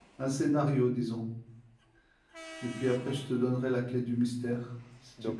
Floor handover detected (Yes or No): Yes